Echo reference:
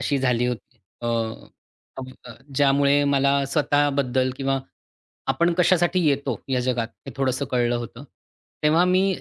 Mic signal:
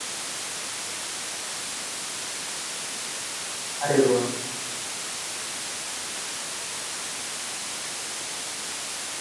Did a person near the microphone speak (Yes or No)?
Yes